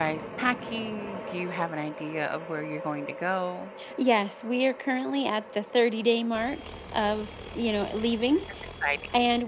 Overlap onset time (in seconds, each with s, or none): none